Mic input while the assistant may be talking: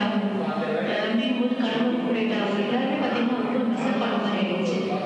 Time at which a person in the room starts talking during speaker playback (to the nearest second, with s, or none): none